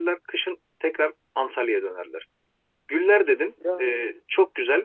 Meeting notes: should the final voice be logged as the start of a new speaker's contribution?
No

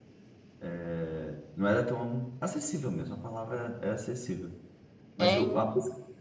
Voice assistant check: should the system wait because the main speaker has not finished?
Yes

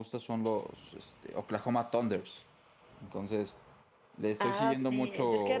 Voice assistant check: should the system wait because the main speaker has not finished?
No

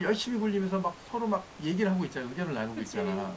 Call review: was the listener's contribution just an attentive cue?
No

